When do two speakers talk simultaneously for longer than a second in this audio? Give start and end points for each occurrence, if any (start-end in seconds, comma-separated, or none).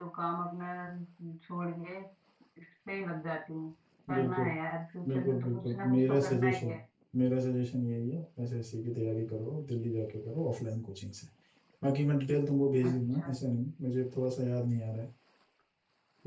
5.1-6.8